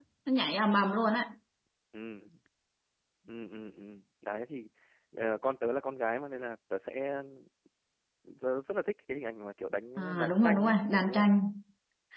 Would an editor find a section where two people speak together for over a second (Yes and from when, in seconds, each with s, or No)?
Yes, from 10.0 s